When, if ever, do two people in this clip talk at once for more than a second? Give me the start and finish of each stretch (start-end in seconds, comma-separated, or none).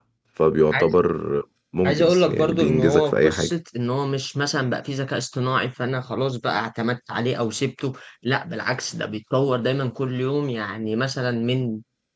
1.8-3.5